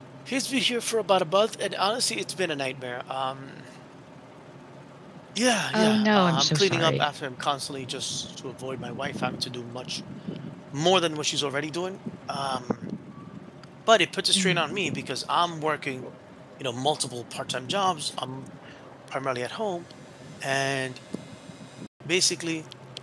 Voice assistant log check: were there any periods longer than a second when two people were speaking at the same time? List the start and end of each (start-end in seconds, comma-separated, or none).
5.7-7.1